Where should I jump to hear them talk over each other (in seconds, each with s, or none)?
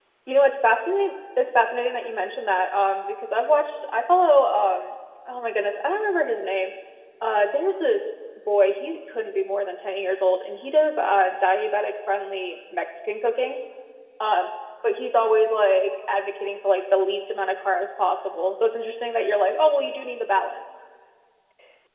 none